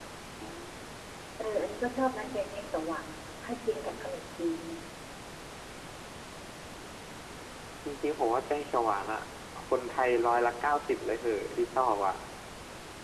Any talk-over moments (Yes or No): No